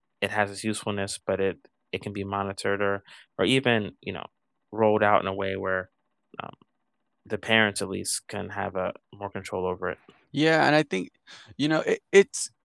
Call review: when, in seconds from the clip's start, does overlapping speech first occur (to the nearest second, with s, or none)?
none